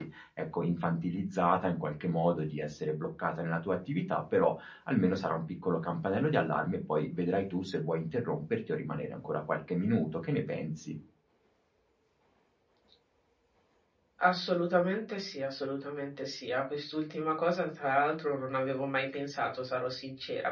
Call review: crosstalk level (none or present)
none